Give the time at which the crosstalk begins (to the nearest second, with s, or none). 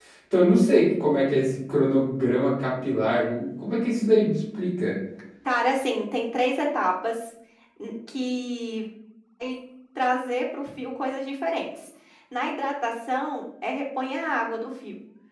none